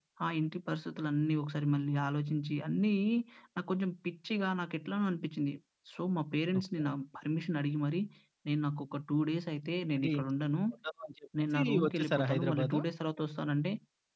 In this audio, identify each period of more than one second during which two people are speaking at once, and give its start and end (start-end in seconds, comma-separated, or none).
11.5-12.8